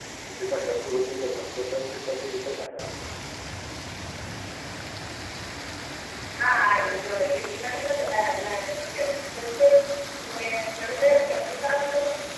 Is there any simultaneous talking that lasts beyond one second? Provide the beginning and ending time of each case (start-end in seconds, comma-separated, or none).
none